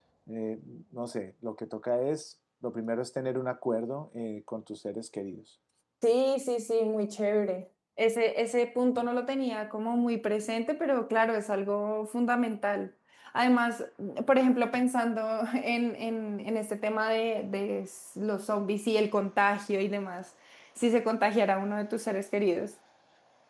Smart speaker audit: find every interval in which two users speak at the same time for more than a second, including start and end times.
none

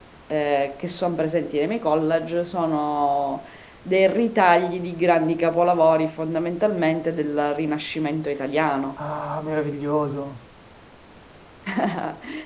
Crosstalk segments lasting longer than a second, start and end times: none

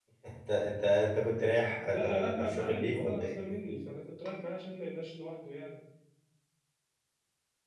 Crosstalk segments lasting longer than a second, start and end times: 1.9-3.4

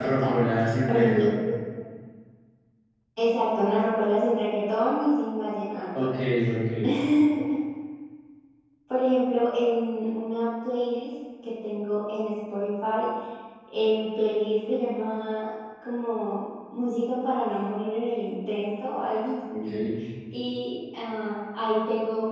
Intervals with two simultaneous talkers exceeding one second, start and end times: none

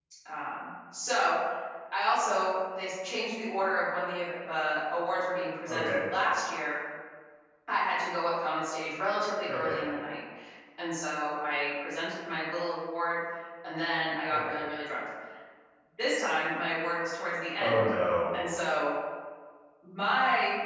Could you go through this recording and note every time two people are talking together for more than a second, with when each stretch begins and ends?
none

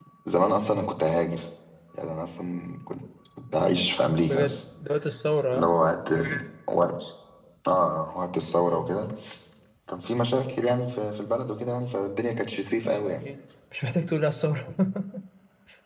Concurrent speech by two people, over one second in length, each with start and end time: none

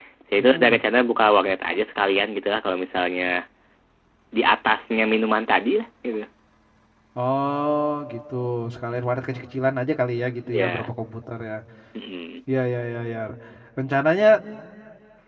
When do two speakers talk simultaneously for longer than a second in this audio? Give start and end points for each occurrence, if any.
none

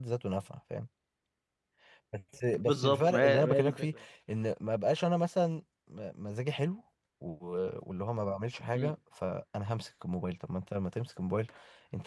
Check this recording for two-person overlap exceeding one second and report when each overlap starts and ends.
2.7-3.9

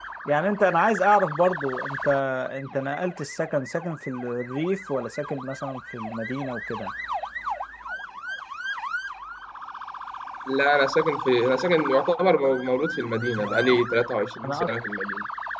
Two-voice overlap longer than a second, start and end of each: none

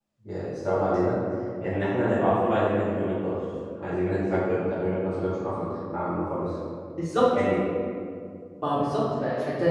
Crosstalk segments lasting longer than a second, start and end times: none

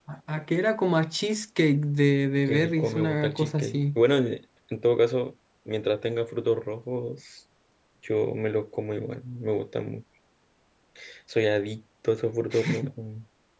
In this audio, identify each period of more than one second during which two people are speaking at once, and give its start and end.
2.5-4.0

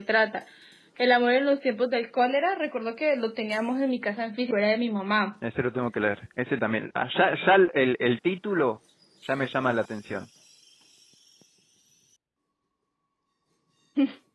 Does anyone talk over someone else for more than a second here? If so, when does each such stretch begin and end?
none

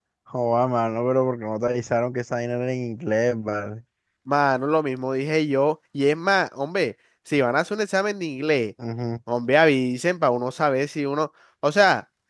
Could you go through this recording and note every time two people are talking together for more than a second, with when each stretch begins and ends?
none

